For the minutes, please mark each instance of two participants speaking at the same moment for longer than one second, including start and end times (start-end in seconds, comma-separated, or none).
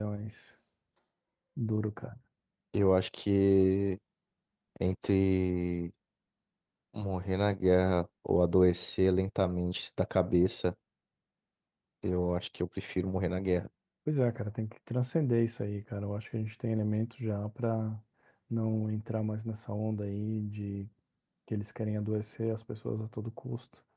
none